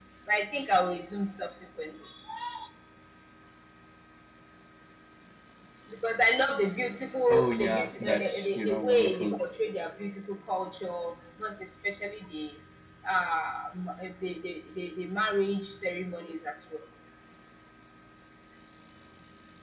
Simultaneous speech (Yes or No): Yes